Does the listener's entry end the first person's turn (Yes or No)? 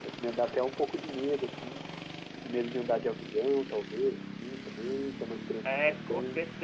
Yes